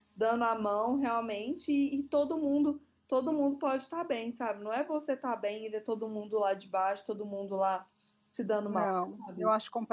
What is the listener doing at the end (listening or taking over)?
taking over